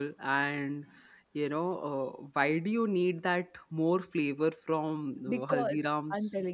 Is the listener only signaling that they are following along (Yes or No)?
No